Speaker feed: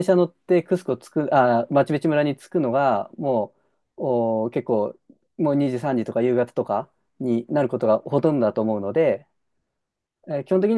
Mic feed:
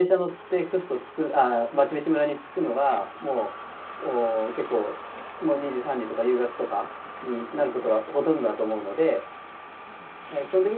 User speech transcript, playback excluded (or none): none